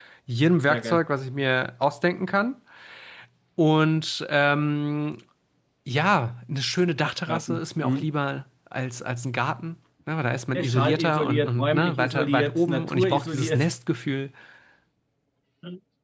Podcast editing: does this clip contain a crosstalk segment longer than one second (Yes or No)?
Yes